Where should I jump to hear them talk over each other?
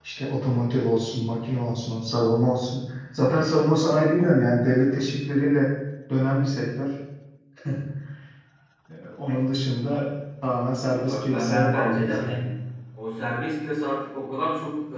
11.1 s

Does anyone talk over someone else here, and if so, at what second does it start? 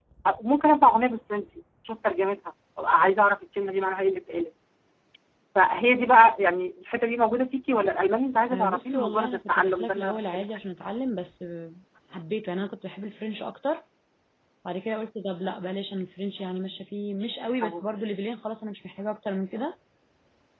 8.5 s

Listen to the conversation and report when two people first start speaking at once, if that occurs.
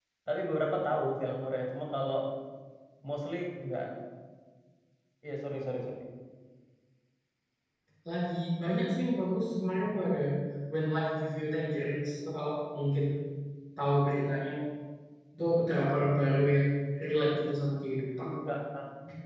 none

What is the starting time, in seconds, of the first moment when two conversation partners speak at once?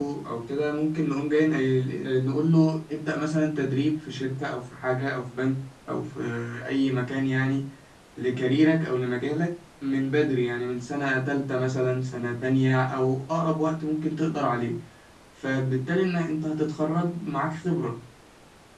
none

